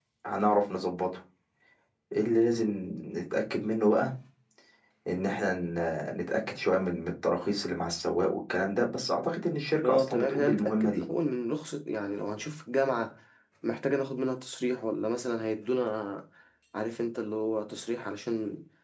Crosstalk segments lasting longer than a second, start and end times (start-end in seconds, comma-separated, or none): 9.8-11.1